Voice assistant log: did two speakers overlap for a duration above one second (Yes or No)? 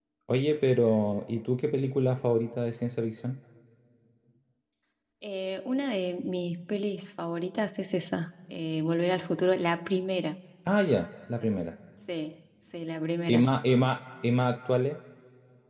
No